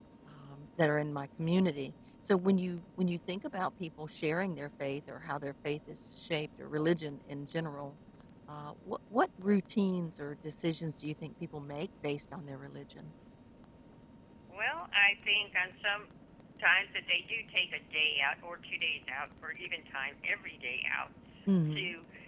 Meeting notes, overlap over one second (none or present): none